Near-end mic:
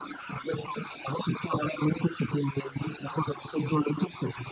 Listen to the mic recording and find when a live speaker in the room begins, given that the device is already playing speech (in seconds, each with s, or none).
none